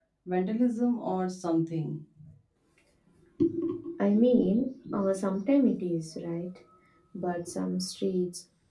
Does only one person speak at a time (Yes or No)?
Yes